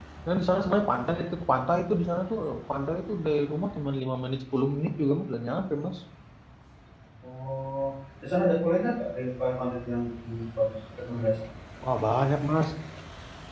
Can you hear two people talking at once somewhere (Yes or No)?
No